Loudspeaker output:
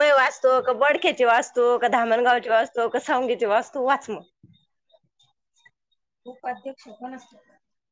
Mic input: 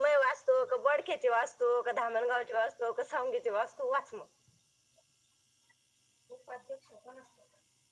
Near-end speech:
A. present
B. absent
B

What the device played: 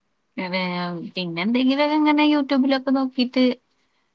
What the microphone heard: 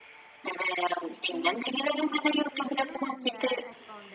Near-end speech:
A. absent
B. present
B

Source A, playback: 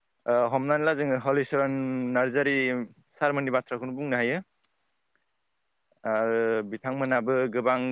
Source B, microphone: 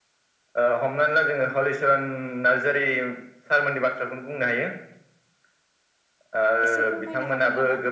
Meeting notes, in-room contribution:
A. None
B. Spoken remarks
B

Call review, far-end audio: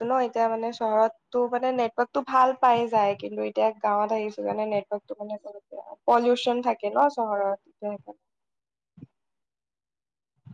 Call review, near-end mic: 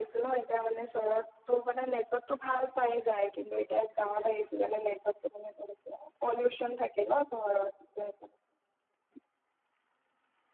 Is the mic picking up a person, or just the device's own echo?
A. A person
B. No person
B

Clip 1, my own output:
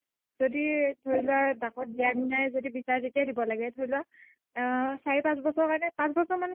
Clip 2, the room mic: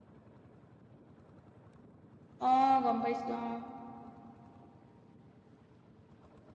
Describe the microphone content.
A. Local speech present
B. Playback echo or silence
A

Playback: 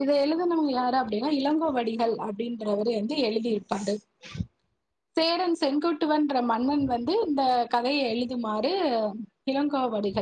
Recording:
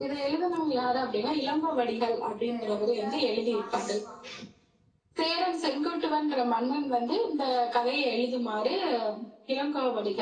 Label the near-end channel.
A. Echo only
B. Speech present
B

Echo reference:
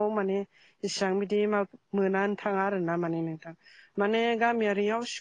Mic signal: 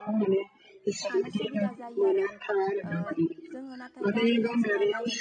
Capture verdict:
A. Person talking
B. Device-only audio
A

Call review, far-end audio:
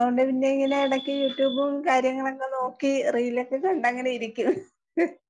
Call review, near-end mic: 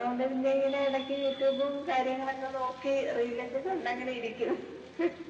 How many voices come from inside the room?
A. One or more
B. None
B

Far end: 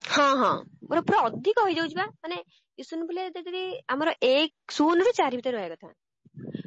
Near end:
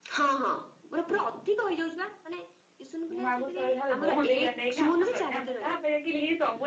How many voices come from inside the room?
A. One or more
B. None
A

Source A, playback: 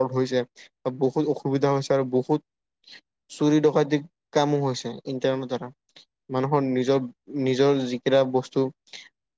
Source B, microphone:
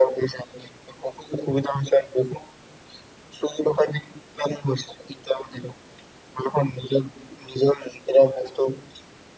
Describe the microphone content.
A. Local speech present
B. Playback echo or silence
B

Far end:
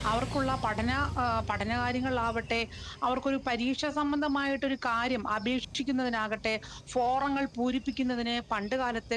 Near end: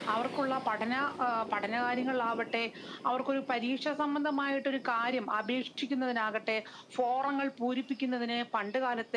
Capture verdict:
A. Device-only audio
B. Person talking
A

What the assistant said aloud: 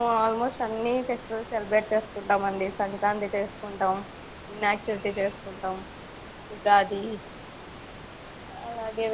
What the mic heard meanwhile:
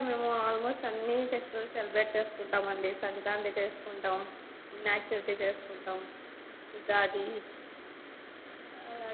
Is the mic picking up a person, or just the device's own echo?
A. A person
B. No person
B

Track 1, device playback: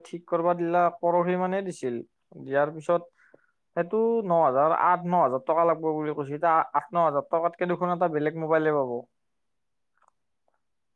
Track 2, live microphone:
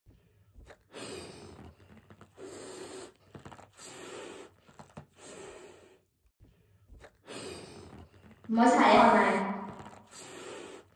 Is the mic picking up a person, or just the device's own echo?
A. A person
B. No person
A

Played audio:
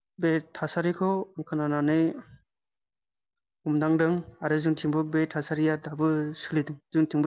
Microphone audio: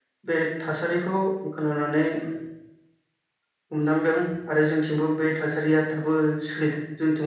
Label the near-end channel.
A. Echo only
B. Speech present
A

